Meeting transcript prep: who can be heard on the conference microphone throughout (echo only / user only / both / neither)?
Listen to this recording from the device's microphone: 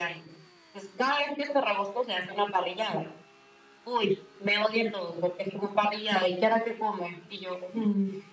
echo only